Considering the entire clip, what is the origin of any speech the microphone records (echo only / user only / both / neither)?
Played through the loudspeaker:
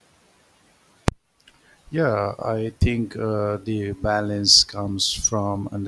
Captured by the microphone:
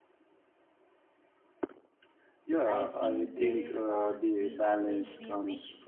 both